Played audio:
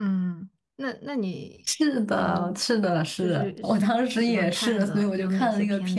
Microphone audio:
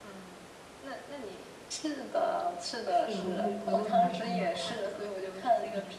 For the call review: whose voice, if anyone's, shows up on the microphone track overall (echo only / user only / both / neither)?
both